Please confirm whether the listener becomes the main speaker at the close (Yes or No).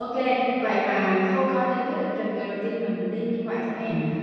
No